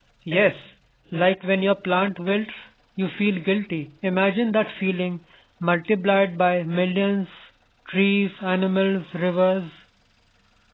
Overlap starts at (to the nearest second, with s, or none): none